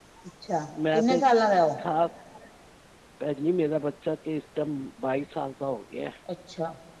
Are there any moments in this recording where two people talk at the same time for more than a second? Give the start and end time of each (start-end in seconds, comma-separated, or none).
none